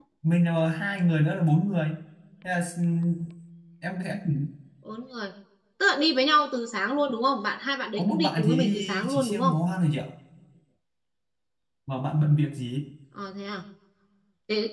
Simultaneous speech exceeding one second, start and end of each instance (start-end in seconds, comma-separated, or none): 8.0-9.5